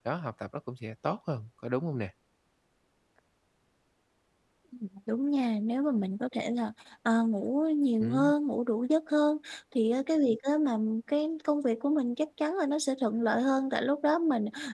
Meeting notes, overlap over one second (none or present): none